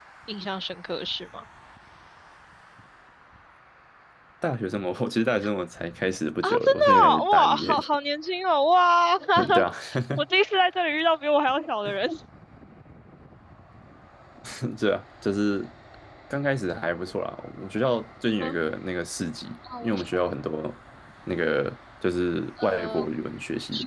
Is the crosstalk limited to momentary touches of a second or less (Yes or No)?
No